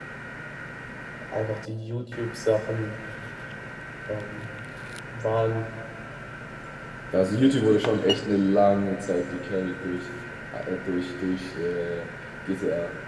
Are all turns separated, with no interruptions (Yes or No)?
Yes